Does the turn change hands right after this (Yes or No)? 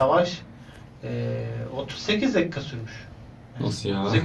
No